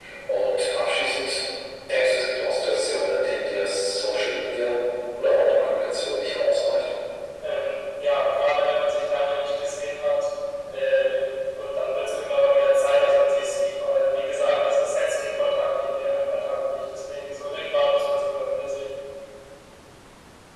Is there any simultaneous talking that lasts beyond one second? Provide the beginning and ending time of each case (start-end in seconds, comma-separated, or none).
none